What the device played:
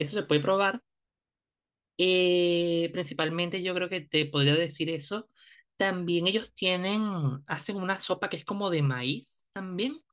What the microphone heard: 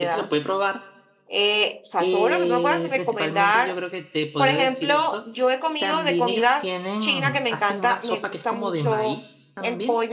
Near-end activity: present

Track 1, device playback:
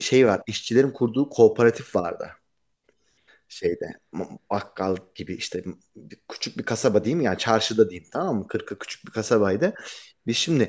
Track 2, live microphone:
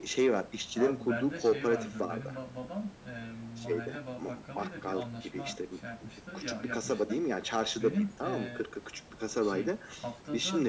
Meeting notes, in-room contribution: present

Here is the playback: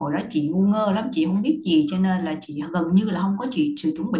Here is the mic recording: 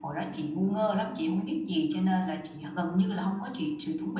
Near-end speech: none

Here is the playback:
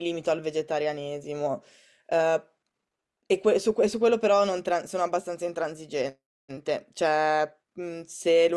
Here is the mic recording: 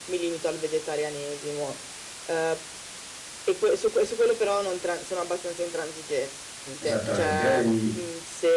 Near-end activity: present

